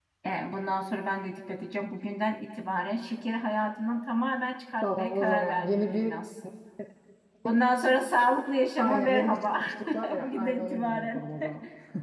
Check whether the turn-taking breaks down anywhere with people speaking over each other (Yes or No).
Yes